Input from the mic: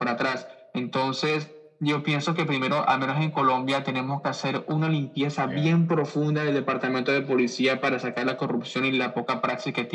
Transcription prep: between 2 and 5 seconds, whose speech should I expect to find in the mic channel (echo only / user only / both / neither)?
echo only